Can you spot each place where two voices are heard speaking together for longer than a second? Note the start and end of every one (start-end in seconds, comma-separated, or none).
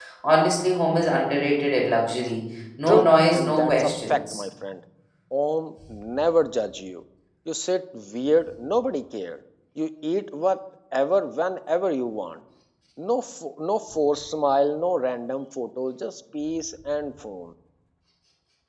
2.9-4.4